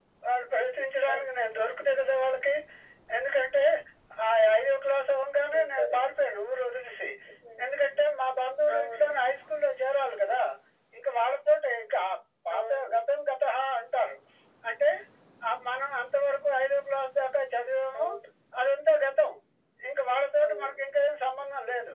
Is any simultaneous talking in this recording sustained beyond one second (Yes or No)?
No